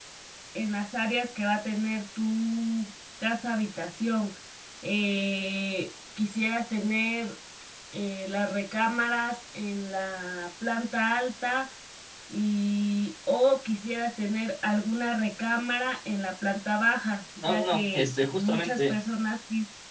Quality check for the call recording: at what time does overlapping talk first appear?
17 s

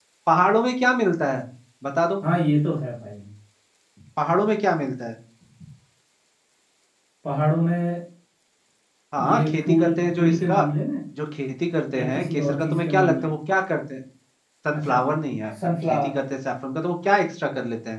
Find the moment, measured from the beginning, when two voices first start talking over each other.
9 s

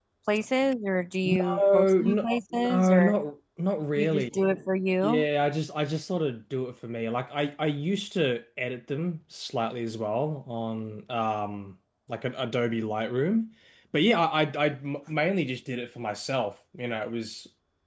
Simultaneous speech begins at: 1 s

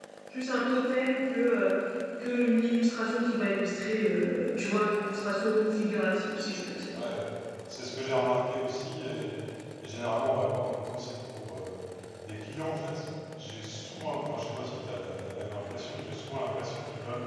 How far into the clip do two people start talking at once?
none

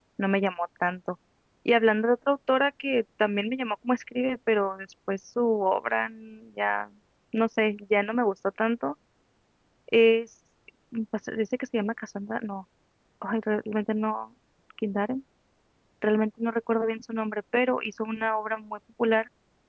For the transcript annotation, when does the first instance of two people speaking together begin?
none

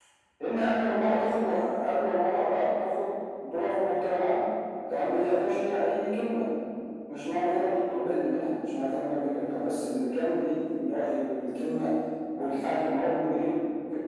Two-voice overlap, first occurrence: none

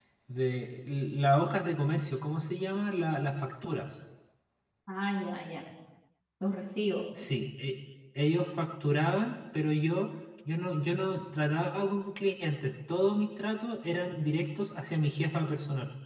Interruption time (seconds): none

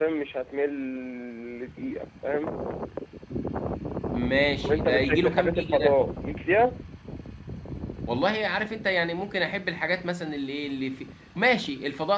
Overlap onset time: 5 s

